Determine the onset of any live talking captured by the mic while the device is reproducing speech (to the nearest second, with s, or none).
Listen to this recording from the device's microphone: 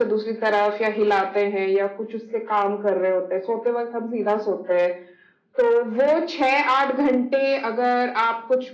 none